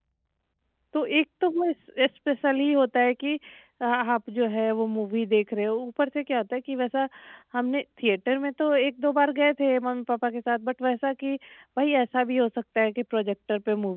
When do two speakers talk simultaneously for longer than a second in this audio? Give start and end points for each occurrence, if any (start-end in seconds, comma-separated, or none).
none